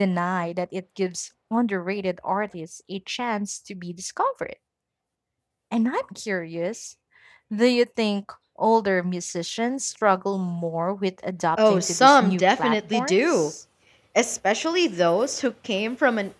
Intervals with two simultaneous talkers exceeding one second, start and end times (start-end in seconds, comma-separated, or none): 11.7-13.5